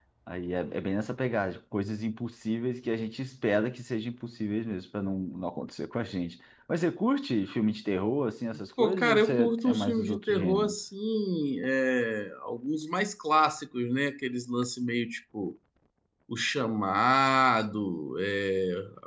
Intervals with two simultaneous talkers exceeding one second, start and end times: 8.8-10.7

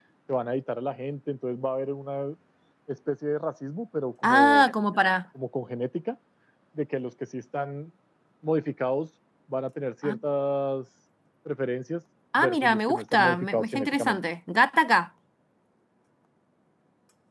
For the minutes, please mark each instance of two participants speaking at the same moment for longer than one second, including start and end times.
12.4-14.2

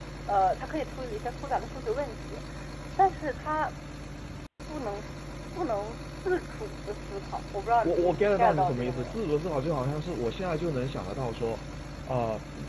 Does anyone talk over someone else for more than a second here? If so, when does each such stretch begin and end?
7.8-9.2

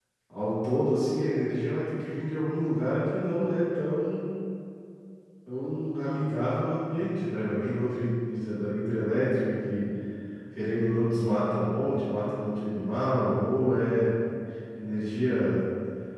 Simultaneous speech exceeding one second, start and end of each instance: none

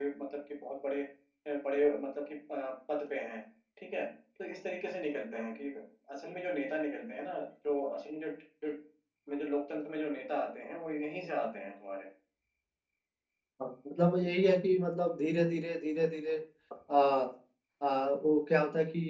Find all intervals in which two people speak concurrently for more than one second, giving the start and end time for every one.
none

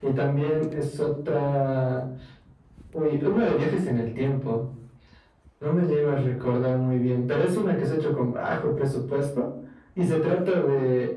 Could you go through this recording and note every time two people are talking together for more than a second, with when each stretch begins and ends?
none

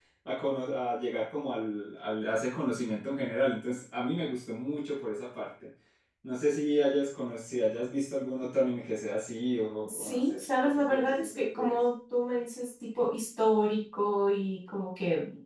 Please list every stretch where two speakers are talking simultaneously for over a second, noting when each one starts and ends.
9.8-11.8

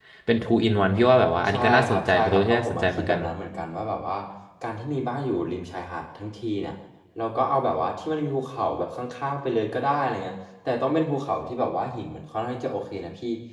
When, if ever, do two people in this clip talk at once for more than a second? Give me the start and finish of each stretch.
1.5-3.2

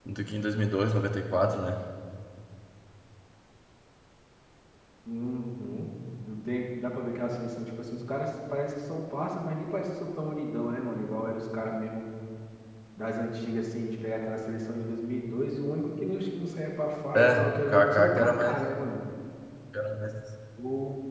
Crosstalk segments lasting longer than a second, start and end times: 17.1-18.7

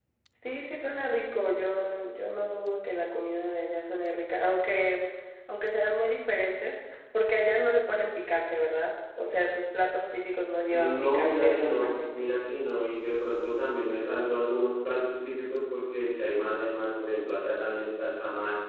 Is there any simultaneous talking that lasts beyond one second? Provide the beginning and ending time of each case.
10.7-12.2

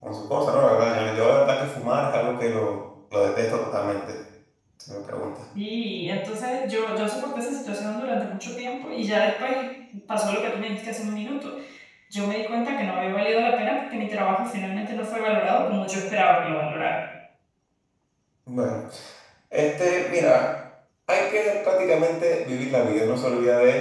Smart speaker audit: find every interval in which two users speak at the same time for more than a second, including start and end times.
none

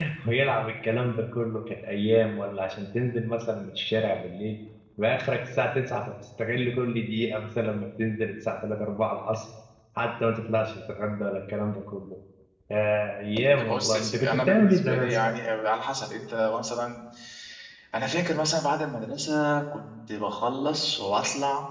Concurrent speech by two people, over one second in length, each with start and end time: 13.6-15.3

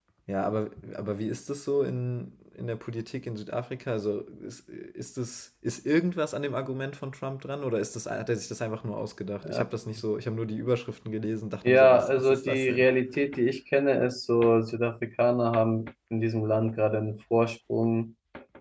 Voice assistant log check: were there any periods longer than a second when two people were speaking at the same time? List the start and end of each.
11.6-12.9

